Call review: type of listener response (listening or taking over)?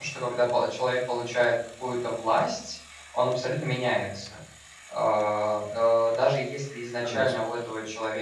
listening